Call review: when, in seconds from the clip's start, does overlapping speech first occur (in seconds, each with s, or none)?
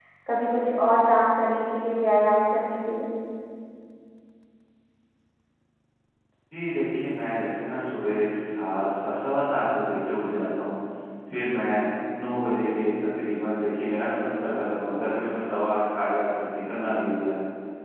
none